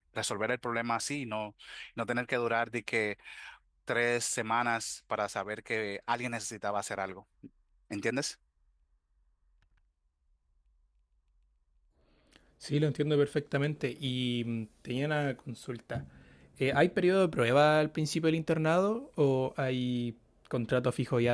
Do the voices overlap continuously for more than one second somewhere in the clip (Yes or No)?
No